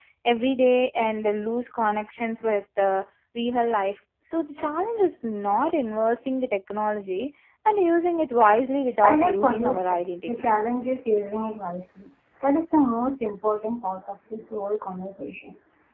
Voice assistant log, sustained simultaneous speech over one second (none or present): present